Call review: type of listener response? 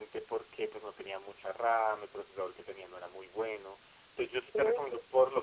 listening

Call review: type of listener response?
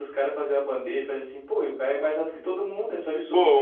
taking over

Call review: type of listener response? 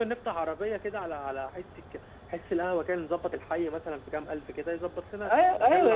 taking over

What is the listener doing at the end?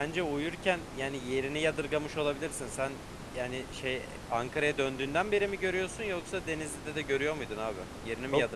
taking over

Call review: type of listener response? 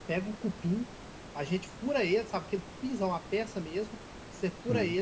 listening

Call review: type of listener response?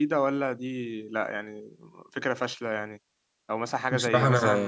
listening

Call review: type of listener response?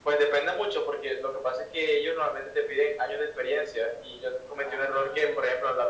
listening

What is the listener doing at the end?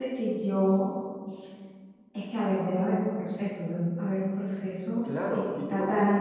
taking over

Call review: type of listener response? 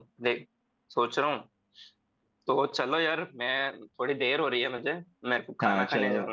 taking over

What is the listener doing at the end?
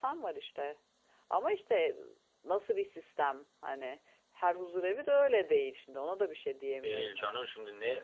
taking over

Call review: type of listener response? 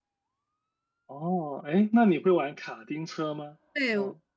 taking over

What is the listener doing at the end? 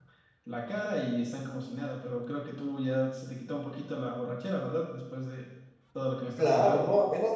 taking over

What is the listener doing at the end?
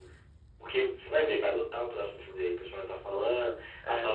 listening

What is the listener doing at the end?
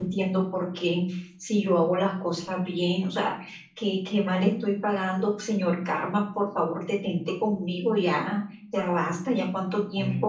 taking over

